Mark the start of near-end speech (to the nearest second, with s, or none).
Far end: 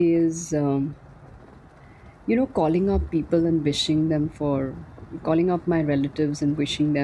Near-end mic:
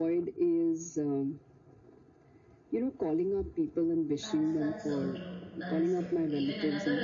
4 s